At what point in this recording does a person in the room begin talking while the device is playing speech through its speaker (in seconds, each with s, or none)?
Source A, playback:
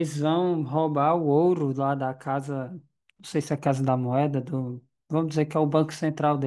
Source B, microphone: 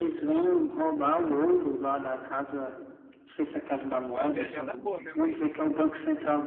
4.0 s